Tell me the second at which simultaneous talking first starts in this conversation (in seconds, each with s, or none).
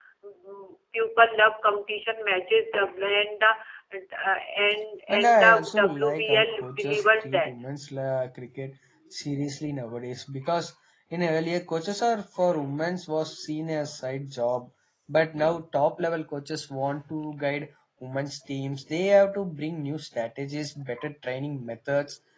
5.2 s